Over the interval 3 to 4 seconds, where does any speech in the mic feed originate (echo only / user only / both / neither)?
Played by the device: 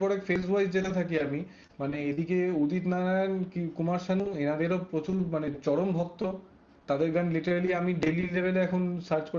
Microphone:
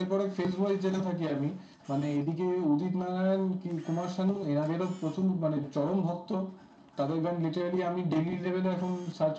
echo only